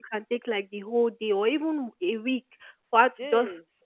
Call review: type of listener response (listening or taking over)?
listening